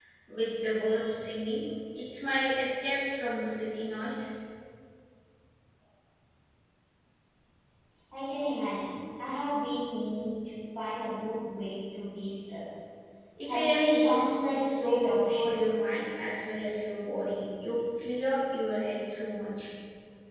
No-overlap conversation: No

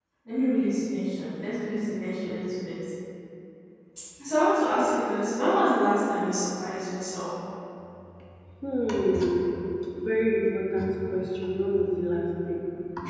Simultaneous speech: No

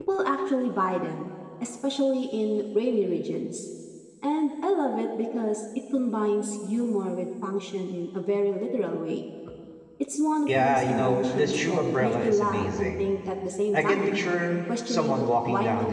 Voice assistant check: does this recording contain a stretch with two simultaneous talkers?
Yes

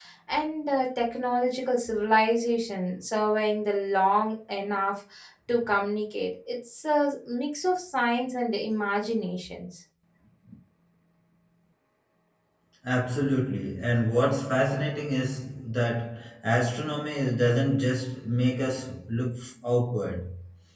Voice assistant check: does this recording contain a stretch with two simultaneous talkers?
No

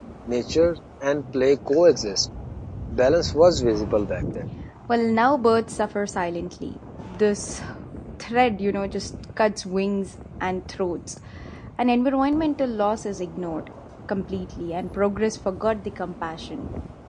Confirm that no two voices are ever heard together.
Yes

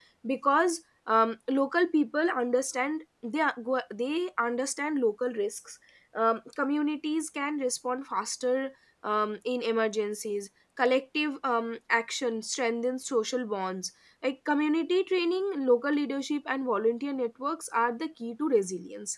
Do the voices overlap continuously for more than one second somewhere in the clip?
No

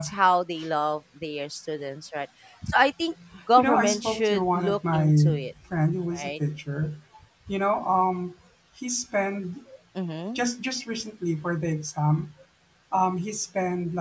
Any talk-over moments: Yes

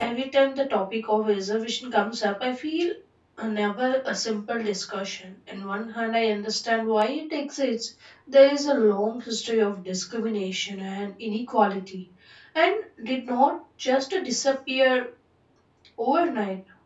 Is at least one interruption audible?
No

